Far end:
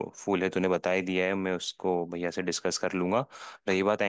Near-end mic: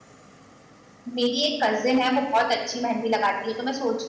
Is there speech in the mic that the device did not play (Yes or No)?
Yes